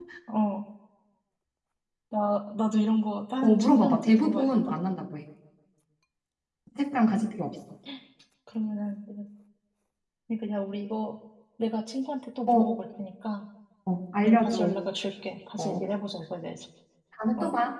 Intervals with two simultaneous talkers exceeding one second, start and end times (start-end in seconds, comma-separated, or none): 3.4-4.7